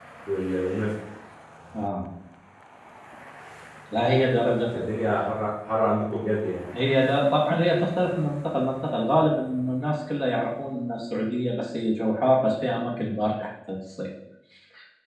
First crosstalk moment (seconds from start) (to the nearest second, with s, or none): none